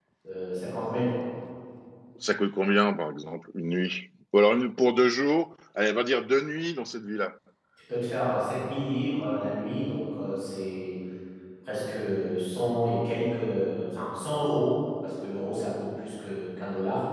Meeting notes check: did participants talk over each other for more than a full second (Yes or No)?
No